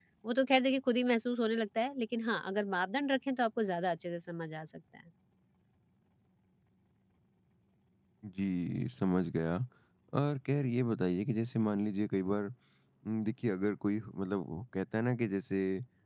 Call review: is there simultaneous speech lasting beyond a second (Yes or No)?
No